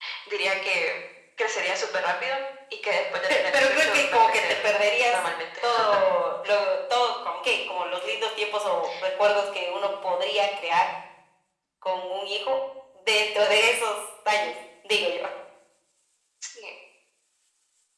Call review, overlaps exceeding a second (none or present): present